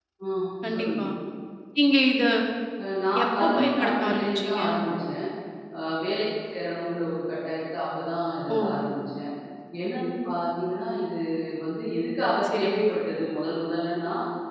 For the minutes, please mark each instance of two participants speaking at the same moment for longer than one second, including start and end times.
3.2-4.6

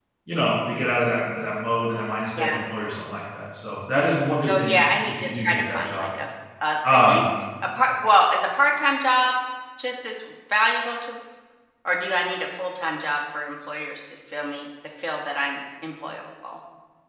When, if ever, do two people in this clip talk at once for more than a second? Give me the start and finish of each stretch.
4.5-6.1

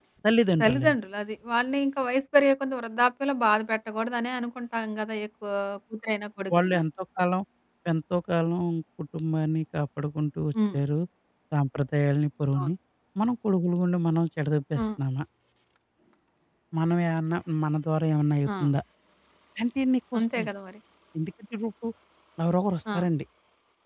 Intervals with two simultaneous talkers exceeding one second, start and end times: none

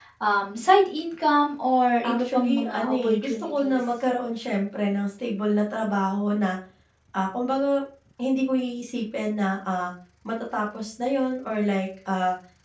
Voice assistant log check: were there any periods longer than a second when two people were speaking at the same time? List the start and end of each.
2.1-3.8

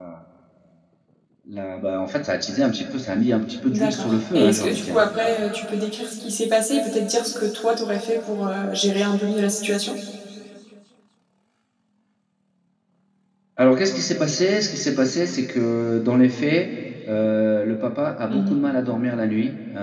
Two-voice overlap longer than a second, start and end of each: 3.7-5.0

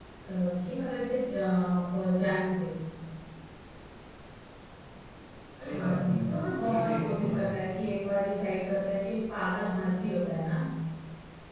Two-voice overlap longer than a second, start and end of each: 5.6-7.7

